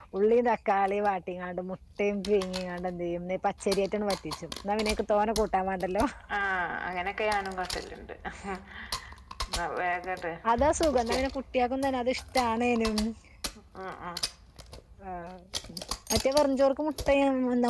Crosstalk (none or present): none